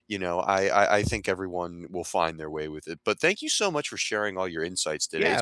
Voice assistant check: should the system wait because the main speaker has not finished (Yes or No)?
No